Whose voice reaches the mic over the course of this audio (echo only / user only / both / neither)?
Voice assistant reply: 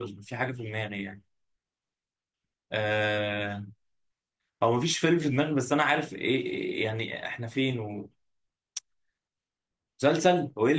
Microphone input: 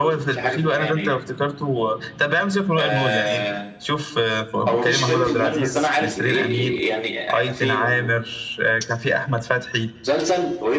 both